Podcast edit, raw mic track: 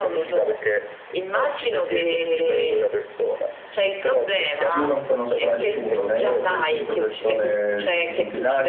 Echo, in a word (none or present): present